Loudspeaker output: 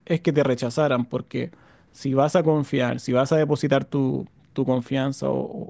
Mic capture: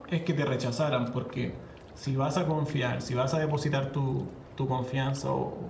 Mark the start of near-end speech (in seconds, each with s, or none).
none